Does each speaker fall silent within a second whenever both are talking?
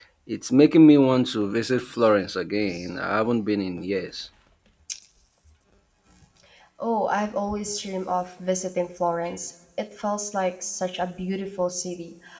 Yes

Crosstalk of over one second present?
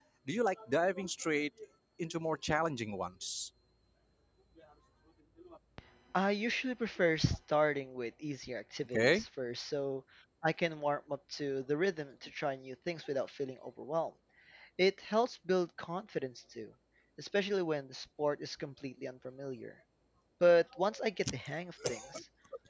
No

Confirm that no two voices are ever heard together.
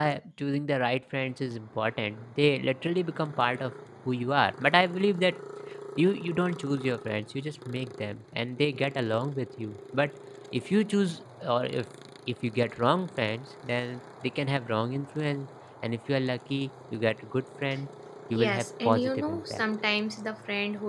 No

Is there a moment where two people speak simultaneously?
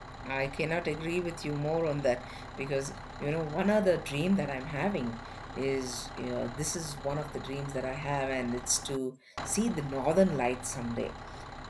No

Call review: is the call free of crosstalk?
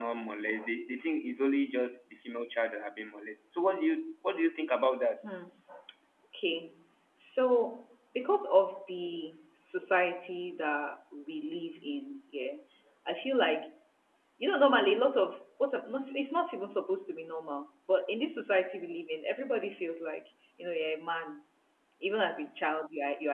Yes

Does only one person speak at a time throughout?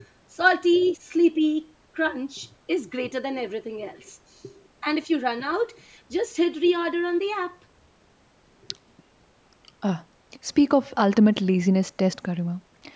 Yes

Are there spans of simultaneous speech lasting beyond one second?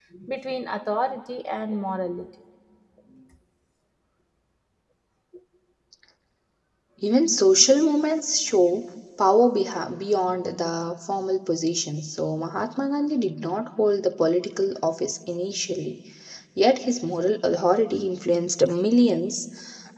No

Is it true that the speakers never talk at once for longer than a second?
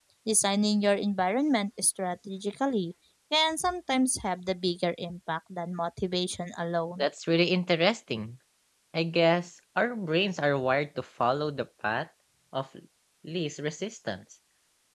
Yes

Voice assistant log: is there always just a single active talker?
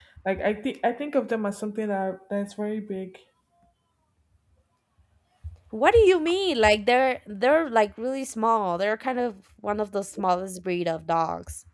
Yes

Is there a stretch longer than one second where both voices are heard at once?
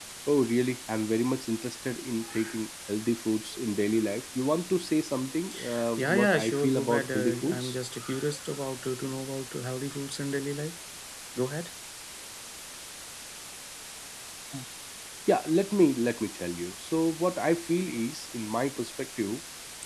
Yes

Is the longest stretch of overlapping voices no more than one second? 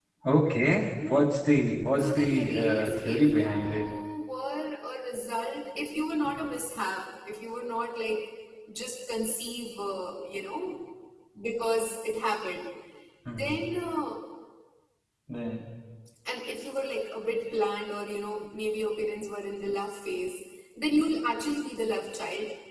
No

